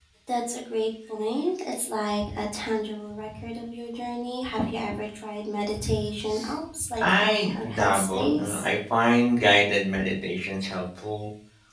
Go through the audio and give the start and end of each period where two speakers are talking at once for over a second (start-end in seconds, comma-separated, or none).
7.0-8.7